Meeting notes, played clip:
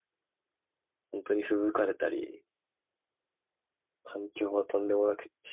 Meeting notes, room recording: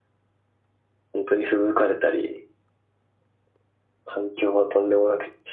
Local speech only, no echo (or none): none